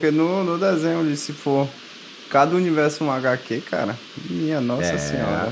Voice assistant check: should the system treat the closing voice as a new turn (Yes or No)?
Yes